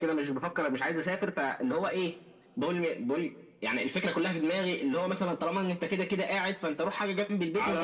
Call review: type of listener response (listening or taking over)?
taking over